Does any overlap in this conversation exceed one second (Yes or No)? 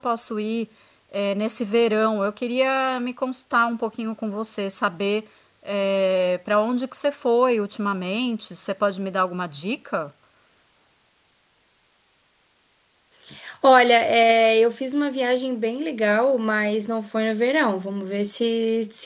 No